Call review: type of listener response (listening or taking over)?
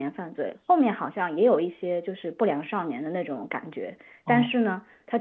listening